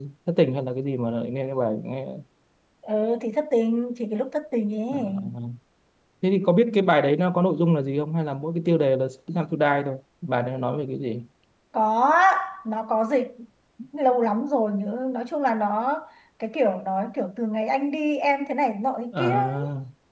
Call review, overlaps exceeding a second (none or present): none